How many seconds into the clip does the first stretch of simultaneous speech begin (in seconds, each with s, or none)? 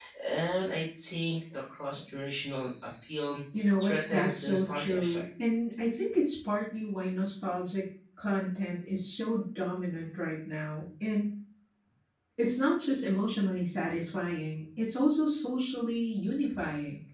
3.8 s